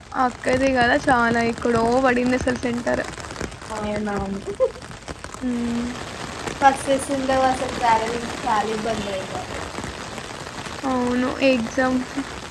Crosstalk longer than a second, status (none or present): none